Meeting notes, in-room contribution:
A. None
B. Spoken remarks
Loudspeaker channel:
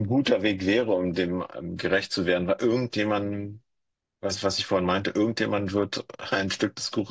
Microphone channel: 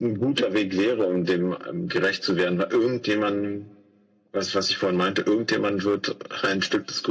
A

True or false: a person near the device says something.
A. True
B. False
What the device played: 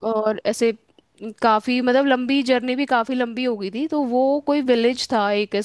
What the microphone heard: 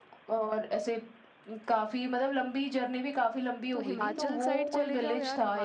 A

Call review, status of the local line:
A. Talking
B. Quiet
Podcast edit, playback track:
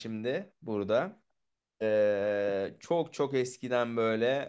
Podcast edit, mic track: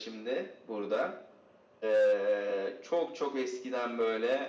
B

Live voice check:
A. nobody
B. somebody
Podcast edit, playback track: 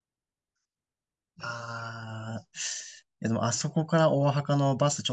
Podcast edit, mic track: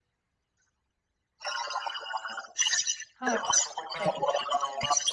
B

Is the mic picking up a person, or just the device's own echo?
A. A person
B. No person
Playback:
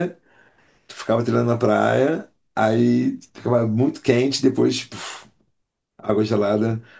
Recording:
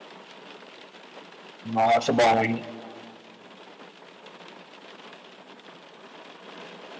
A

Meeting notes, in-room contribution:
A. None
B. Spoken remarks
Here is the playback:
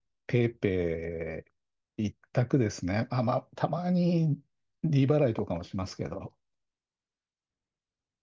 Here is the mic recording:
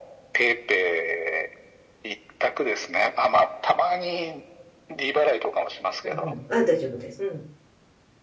B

